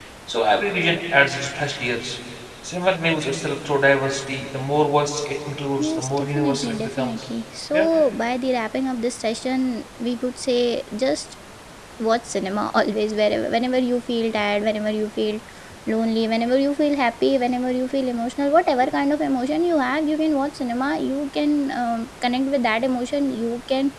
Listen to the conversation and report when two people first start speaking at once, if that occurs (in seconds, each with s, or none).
5.8 s